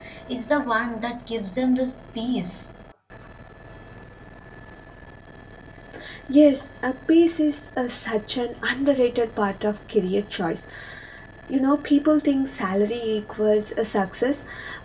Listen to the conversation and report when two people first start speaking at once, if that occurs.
none

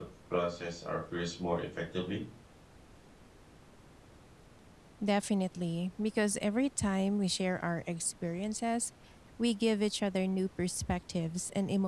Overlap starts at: none

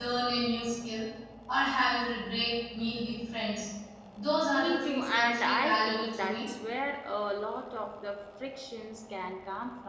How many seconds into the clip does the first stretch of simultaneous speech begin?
4.6 s

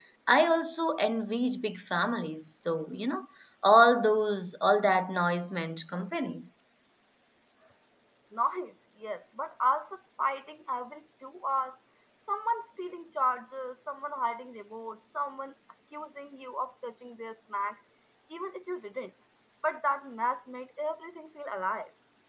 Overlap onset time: none

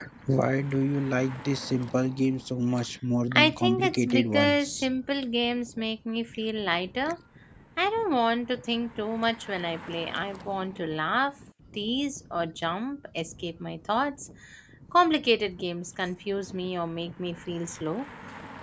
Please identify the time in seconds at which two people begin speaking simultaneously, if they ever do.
3.3 s

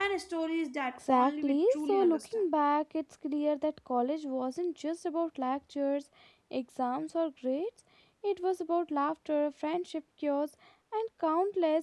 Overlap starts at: 1.0 s

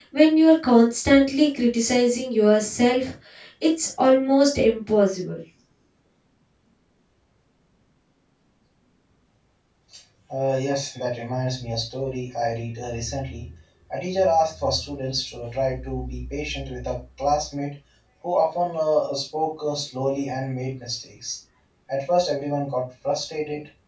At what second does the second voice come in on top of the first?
none

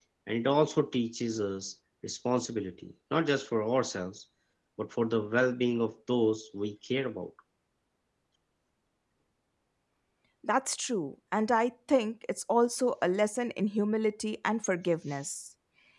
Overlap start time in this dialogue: none

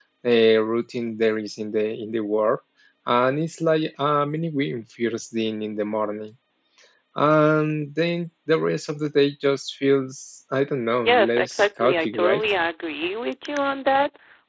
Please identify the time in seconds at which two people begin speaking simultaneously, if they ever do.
11.0 s

